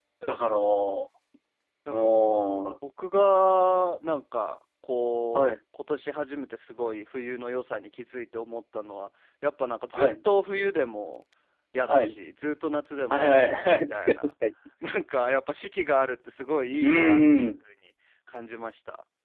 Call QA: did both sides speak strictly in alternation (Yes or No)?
No